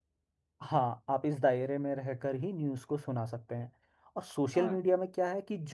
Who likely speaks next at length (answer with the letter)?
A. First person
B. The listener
A